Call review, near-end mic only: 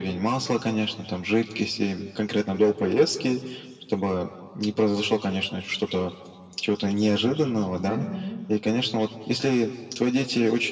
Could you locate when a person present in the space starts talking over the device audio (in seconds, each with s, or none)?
7.8 s